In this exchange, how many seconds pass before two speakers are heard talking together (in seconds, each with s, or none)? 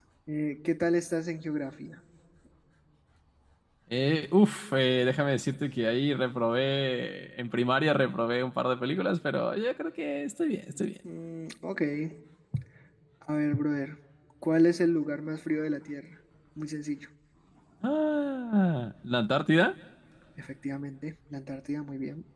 none